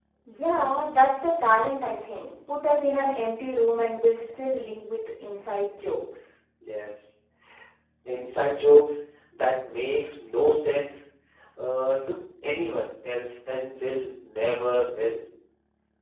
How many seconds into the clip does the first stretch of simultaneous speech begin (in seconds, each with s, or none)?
none